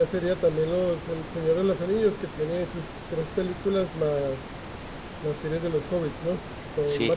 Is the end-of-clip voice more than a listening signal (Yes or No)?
Yes